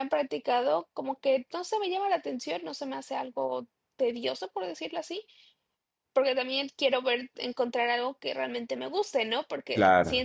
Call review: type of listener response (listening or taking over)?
listening